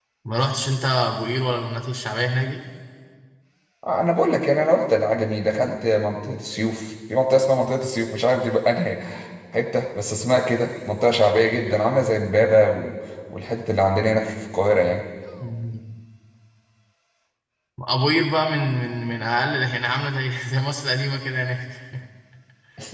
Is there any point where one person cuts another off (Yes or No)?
No